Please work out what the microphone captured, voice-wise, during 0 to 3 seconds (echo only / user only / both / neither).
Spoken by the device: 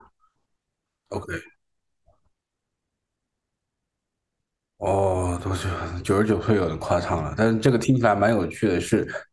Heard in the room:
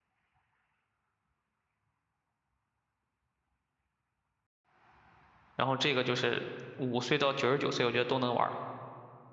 neither